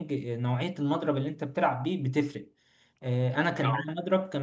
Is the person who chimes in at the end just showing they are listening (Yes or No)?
Yes